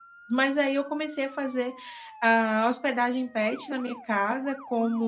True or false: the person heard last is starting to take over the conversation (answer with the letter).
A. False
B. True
A